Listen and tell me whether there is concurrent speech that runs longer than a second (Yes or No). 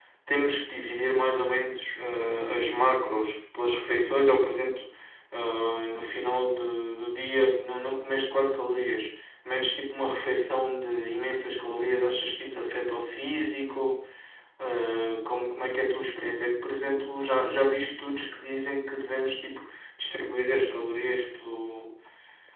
No